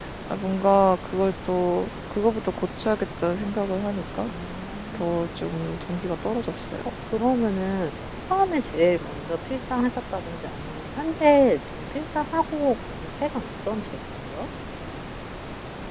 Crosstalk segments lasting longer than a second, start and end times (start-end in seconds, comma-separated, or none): none